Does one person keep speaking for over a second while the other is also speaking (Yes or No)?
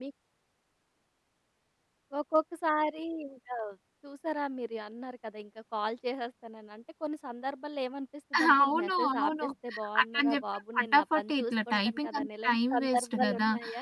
Yes